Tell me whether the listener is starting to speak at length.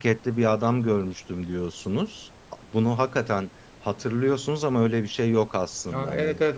Yes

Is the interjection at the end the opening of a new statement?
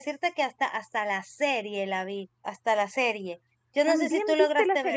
Yes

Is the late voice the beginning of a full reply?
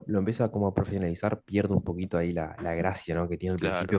No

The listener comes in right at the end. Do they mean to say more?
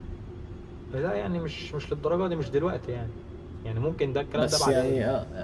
Yes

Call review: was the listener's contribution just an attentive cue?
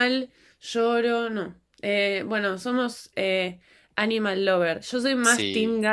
Yes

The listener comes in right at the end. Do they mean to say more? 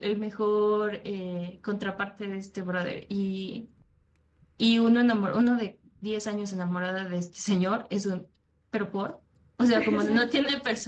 No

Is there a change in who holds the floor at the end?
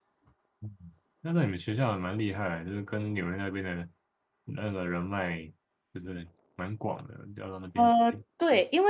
Yes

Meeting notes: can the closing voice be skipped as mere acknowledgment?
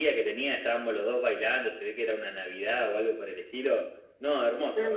No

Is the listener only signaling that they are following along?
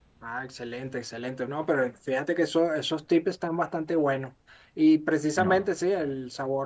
Yes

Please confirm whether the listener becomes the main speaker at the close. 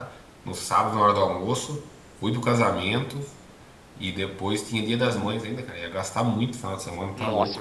Yes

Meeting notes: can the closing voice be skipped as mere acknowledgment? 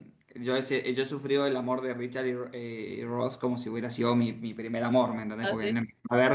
Yes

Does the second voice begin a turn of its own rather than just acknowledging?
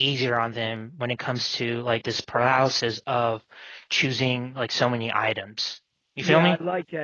Yes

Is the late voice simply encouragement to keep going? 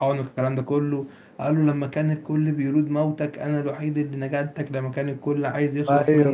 Yes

